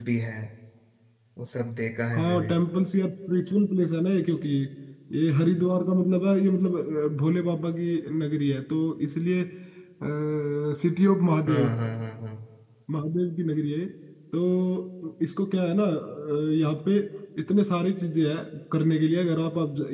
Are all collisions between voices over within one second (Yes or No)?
Yes